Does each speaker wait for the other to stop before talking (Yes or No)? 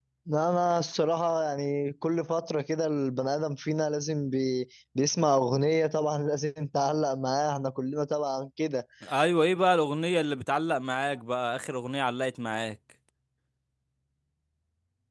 Yes